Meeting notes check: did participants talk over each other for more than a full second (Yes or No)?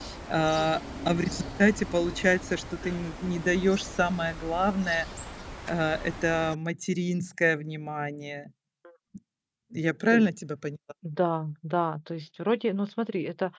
No